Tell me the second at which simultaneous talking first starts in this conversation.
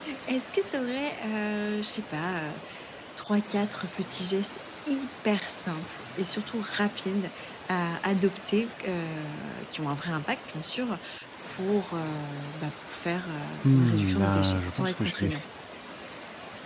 13.7 s

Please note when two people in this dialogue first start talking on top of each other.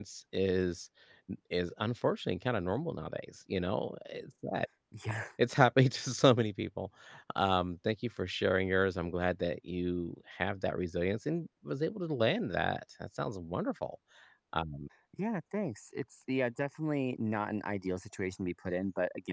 none

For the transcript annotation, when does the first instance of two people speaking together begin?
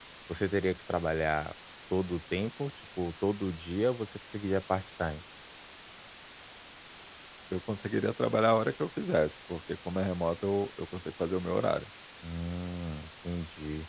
none

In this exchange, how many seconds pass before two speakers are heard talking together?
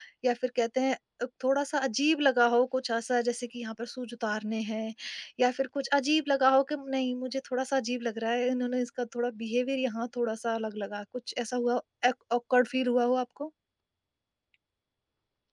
none

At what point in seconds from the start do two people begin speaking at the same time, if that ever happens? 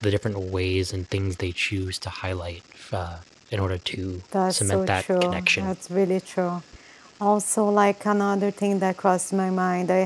4.3 s

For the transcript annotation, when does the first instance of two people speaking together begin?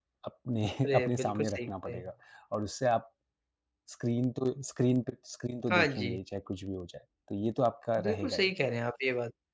0.8 s

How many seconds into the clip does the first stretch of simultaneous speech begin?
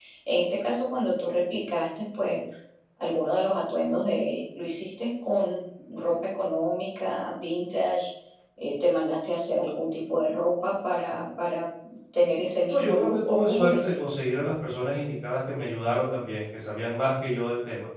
12.7 s

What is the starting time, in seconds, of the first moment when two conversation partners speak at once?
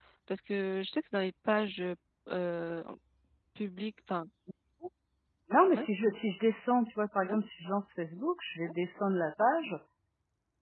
none

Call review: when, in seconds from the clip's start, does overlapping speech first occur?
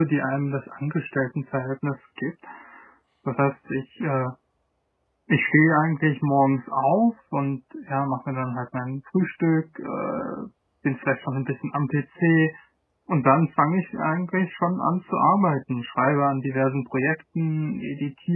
none

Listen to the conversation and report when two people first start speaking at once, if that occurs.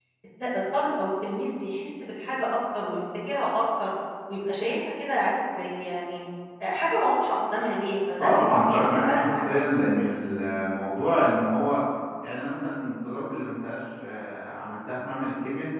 8.2 s

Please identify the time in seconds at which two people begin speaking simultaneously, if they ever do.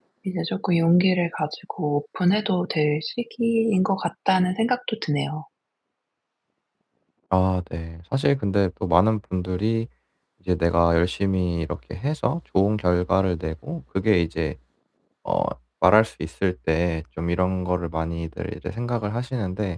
none

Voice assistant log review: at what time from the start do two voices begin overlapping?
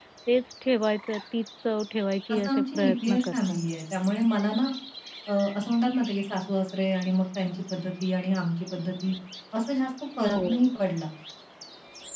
2.3 s

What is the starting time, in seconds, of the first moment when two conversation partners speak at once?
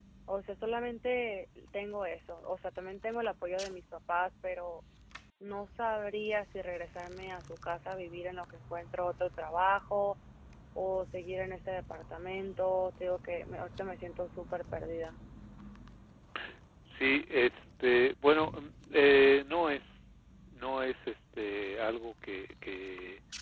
none

